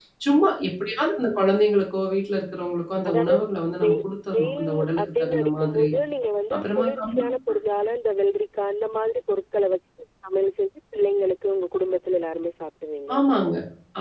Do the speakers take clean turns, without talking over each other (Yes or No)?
No